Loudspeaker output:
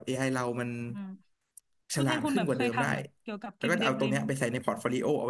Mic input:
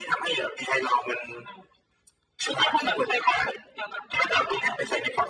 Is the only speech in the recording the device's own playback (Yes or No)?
Yes